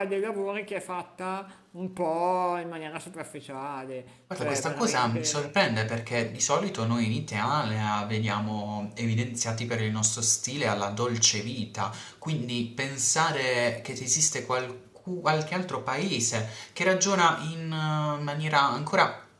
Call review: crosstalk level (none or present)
present